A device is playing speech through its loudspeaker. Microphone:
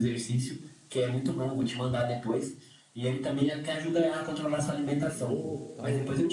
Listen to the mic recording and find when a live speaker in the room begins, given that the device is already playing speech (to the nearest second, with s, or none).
5 s